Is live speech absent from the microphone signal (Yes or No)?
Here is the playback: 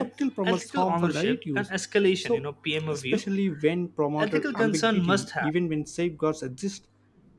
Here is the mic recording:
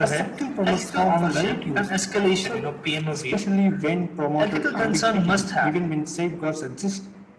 Yes